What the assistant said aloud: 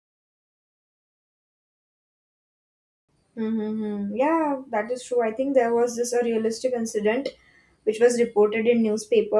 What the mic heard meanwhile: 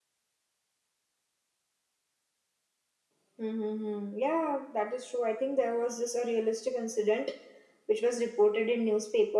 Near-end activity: none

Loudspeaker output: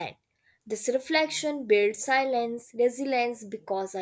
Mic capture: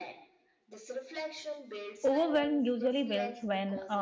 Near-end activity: present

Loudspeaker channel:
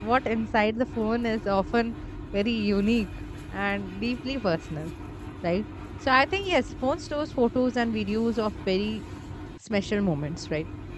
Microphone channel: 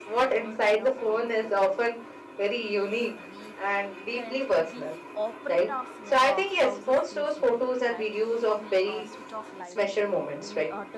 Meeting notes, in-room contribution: present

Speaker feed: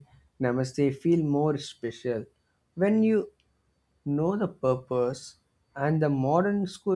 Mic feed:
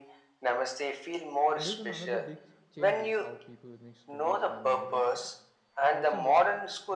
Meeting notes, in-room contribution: present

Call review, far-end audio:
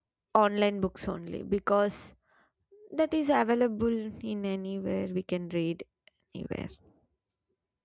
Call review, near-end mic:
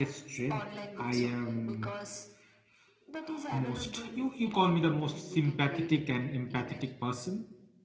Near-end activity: present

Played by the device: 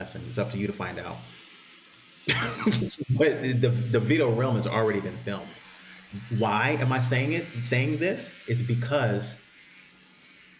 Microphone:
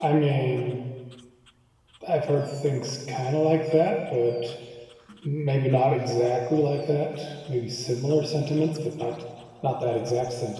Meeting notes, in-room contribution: present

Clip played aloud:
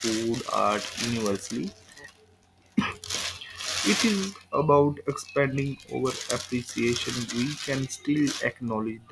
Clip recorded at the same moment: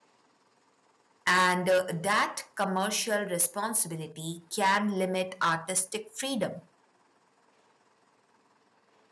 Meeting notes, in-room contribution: present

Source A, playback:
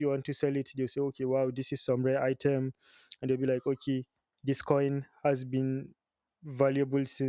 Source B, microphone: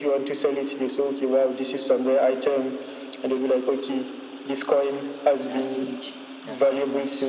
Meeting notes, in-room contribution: present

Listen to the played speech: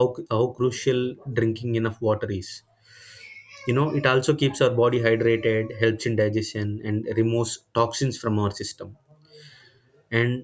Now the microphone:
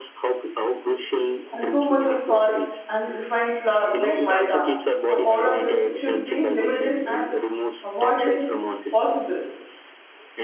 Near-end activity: present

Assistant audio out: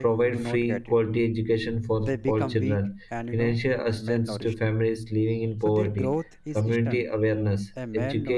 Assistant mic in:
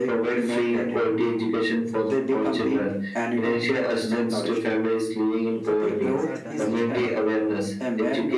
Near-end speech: present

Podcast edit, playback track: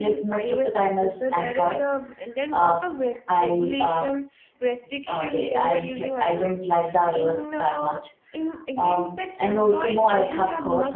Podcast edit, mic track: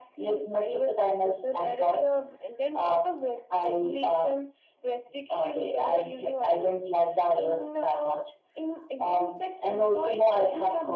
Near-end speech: none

